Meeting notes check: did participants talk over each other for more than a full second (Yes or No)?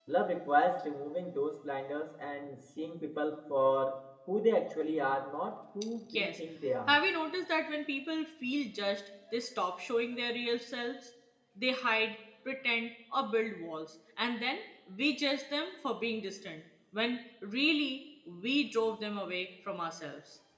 No